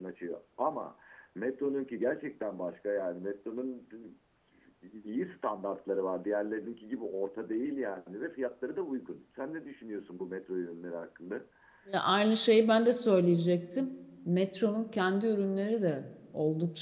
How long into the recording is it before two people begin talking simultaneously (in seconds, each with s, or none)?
none